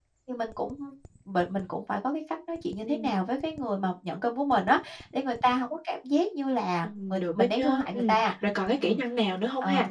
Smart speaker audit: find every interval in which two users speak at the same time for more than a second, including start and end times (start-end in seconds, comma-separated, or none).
6.8-8.2